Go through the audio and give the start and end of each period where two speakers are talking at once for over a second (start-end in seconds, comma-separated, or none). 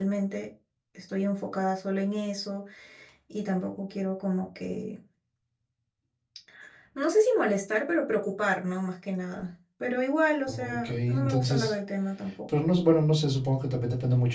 10.5-11.7